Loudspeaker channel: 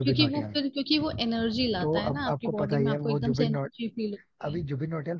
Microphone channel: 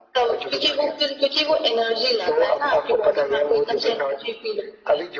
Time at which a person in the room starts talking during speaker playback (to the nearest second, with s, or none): none